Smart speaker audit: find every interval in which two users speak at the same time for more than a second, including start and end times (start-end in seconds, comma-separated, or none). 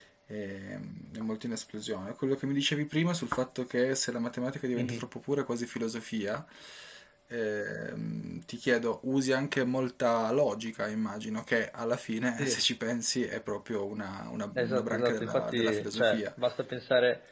14.6-16.2